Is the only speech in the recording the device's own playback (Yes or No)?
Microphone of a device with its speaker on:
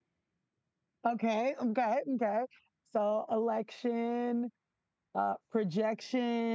No